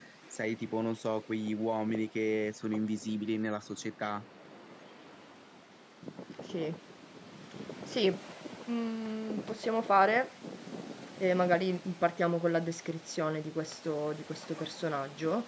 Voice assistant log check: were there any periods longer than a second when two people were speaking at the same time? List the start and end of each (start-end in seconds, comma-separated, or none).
none